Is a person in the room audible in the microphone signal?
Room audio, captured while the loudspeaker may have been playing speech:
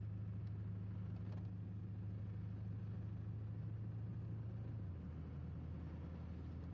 No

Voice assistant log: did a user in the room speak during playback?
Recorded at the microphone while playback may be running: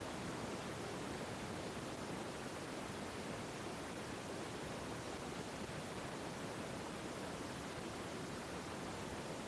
No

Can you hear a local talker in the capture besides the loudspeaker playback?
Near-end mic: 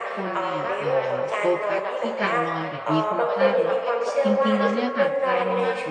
Yes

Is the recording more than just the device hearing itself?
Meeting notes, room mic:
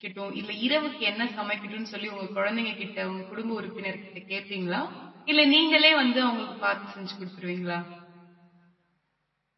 Yes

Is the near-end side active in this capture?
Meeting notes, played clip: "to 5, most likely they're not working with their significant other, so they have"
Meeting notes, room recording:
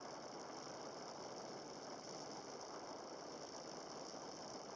No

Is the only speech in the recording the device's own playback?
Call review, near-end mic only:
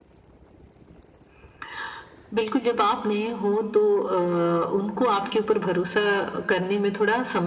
Yes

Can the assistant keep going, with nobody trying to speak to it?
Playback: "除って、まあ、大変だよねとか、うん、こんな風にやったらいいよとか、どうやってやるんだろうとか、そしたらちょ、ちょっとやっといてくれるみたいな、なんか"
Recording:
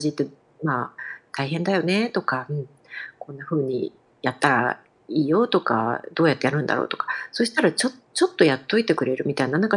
Yes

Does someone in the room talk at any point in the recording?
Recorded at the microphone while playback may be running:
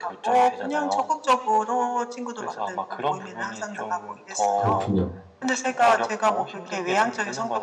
Yes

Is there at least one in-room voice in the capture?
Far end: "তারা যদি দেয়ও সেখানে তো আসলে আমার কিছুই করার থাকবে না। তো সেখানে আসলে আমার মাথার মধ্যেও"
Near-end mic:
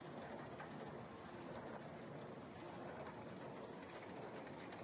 No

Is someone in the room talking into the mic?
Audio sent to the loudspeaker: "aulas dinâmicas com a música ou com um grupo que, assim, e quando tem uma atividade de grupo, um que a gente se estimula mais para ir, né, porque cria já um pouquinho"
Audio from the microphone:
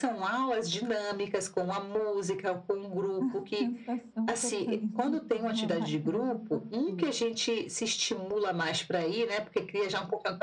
Yes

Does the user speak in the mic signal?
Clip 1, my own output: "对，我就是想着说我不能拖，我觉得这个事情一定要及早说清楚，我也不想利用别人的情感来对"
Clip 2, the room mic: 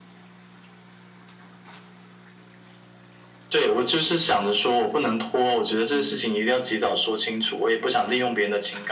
Yes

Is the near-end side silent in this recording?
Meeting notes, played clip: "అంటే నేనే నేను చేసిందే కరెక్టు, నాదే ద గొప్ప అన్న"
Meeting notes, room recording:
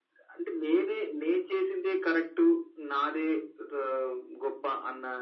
Yes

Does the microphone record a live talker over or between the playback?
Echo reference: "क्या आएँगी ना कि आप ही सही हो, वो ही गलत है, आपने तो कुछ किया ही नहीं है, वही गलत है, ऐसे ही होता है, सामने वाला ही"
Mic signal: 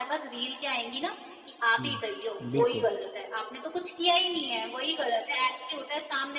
Yes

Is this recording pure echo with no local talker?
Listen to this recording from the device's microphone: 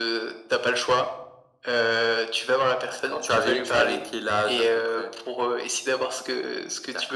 Yes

